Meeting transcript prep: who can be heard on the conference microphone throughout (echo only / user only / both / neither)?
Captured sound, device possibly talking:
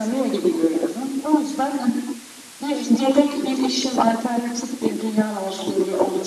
echo only